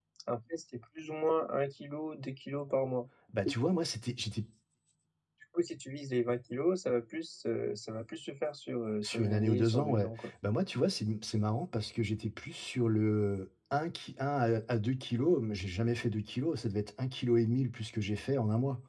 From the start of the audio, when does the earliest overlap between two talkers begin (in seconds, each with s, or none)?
9.0 s